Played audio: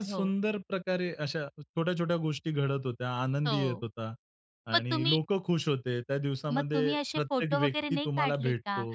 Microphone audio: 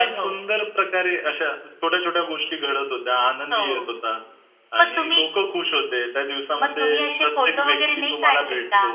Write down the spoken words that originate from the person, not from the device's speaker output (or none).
none